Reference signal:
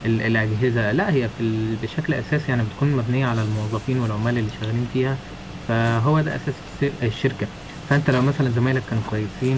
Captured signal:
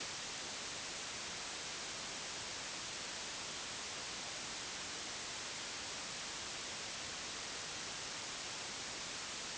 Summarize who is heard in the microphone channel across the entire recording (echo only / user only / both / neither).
neither